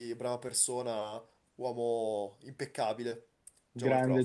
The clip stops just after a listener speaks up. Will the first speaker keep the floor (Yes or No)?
No